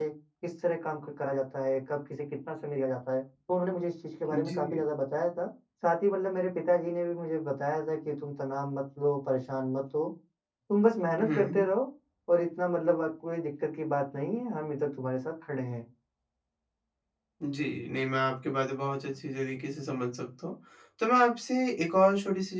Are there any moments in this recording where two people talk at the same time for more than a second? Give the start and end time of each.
none

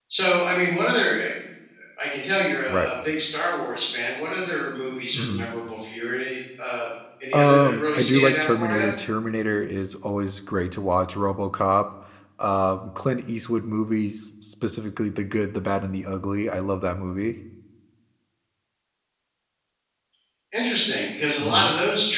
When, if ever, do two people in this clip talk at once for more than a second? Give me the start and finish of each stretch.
7.3-8.9

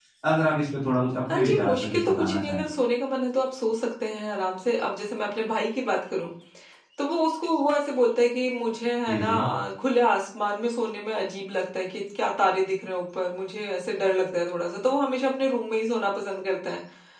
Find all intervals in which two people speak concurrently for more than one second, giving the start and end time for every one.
1.3-2.6

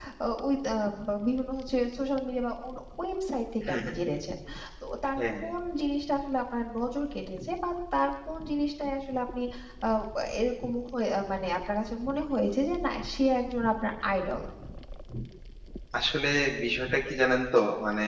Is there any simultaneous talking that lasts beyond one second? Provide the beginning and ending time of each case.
none

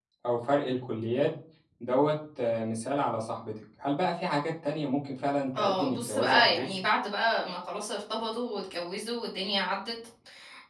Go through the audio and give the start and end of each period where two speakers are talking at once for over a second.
5.6-6.8

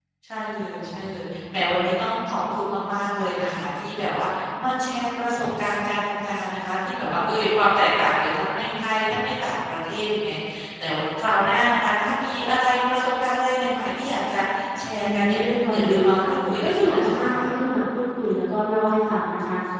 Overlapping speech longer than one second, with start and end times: 15.0-17.5

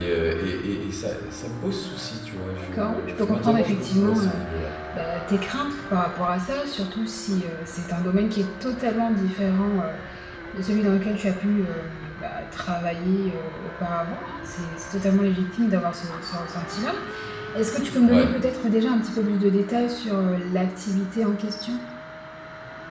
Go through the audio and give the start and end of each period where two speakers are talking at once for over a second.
2.6-4.4

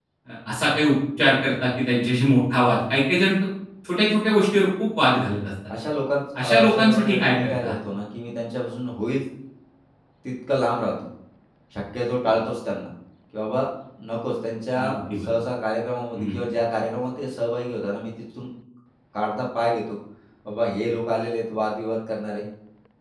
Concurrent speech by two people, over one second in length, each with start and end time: 6.4-7.8

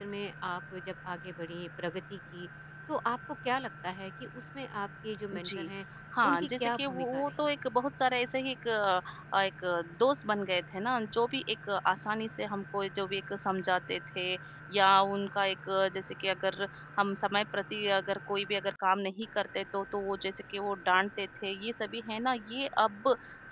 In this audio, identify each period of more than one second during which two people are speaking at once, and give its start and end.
6.3-7.5

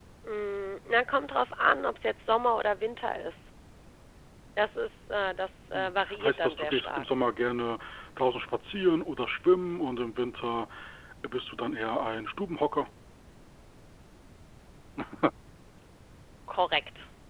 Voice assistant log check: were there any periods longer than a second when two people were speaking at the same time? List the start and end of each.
5.7-7.1

